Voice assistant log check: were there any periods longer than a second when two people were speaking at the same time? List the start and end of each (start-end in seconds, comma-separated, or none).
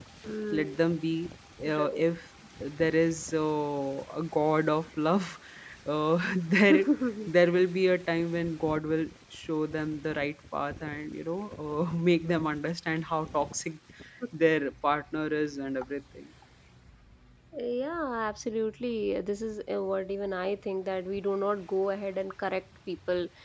none